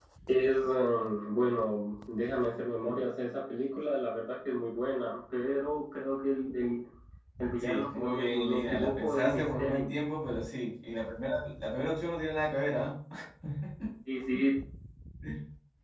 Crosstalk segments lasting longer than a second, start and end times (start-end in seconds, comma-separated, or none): 7.6-9.9